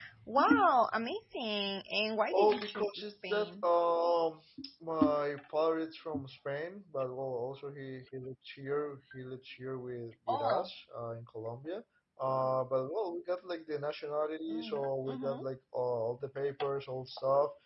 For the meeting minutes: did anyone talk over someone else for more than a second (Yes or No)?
Yes